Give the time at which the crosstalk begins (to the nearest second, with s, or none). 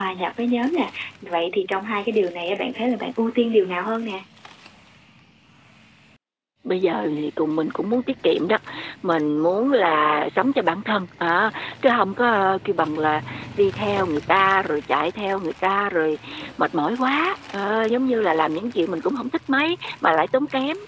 none